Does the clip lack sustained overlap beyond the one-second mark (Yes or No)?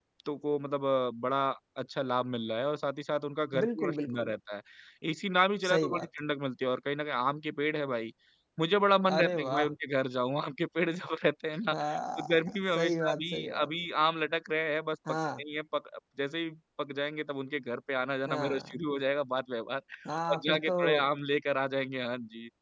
No